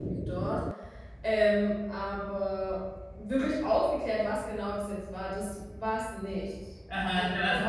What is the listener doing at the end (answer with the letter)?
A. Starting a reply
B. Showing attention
A